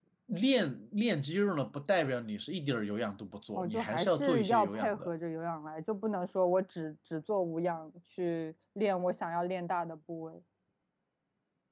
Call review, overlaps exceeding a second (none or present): present